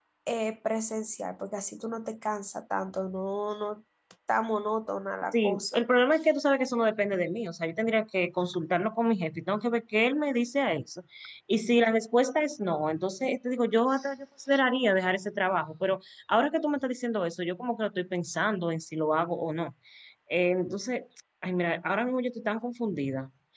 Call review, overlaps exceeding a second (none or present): none